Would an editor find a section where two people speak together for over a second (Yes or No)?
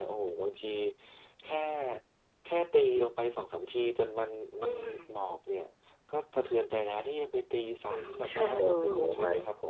Yes